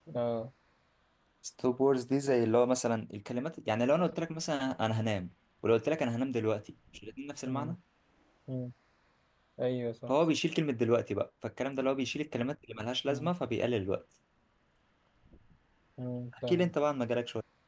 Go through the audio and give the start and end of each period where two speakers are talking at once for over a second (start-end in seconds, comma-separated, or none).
none